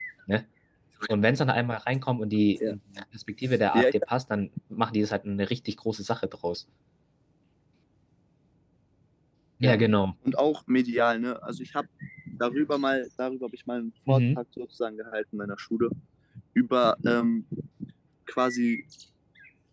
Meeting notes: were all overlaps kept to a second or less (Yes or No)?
Yes